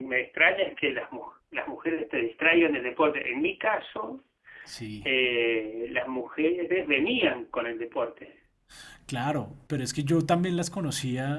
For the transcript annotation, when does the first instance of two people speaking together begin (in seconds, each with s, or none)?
none